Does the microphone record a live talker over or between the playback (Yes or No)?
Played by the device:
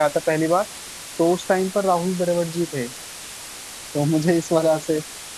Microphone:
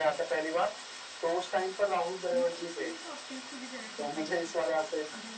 Yes